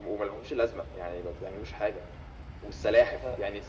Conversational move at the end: listening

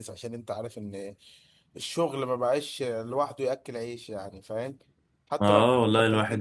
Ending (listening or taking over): taking over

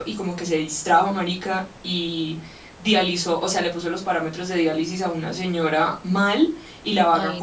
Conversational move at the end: listening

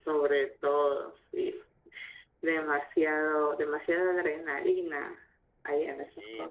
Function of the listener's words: taking over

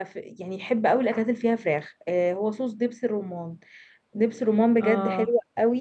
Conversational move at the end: listening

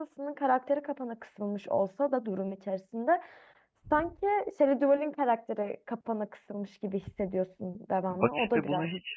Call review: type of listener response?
taking over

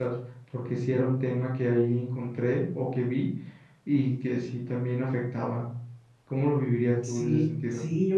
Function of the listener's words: taking over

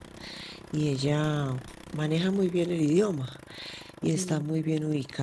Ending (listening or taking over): listening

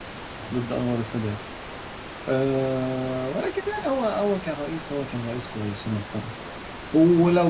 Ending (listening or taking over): listening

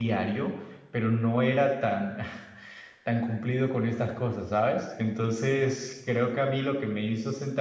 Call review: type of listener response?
listening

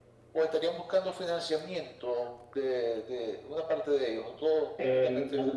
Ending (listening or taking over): taking over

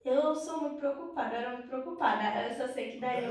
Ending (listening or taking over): listening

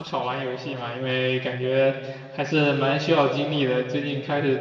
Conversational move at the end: listening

